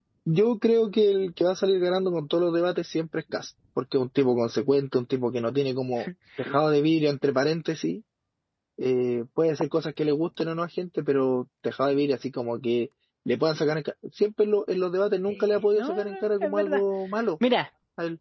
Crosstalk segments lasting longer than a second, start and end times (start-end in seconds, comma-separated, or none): 15.3-16.8